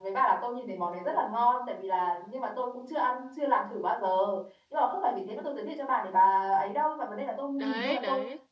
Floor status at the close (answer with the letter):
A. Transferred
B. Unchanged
B